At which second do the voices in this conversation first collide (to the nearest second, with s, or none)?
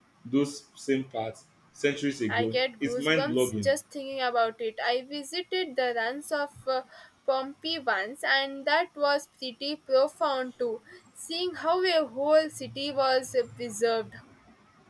2 s